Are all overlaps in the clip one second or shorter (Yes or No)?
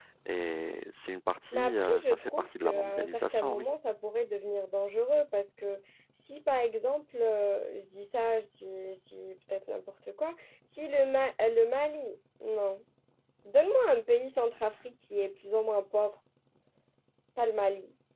No